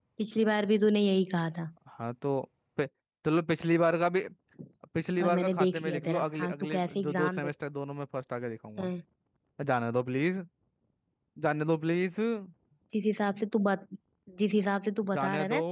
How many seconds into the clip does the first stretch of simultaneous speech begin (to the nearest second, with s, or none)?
5 s